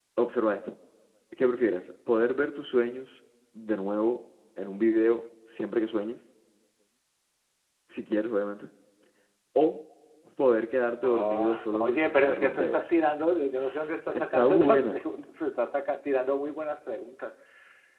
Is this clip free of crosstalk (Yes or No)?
No